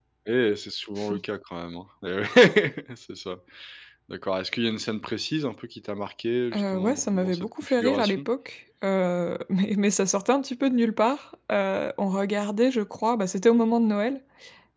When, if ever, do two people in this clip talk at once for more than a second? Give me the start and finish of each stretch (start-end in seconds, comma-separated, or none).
6.5-8.2